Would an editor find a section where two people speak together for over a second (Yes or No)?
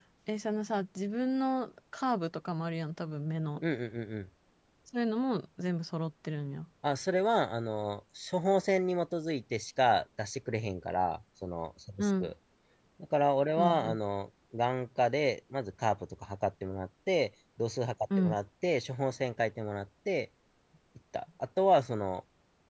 No